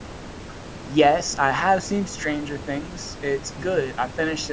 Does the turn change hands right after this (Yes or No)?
No